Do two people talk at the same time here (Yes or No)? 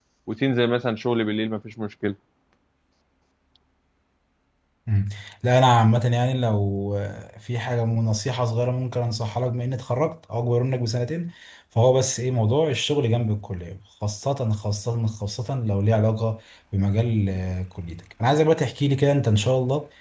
No